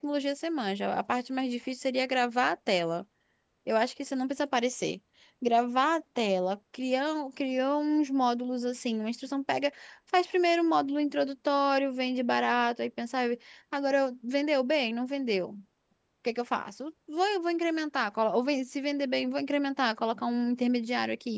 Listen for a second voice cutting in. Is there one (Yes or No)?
No